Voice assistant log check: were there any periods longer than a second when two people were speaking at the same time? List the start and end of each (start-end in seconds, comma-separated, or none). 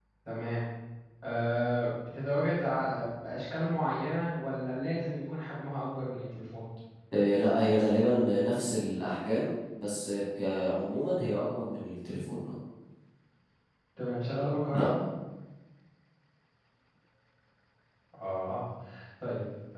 none